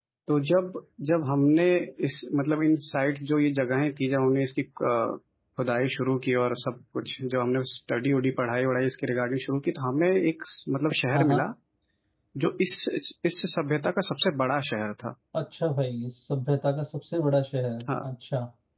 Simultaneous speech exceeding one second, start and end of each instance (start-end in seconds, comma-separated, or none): none